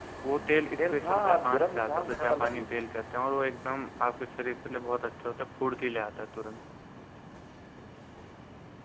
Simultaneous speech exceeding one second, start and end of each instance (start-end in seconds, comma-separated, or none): 0.8-2.6